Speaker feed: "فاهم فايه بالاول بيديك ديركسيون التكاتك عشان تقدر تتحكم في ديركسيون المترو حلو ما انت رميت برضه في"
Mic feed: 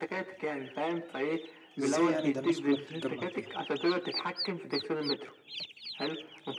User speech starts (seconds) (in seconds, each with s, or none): 1.8 s